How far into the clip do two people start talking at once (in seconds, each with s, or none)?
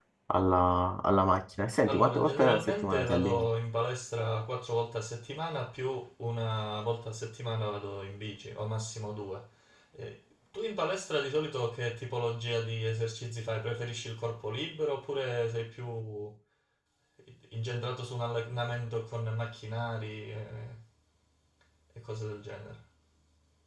1.8 s